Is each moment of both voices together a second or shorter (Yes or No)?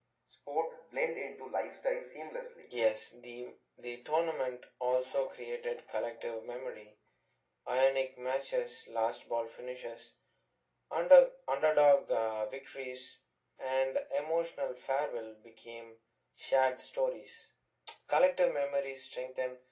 Yes